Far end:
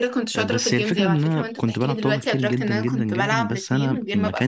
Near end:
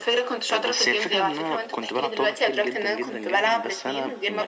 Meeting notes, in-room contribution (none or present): none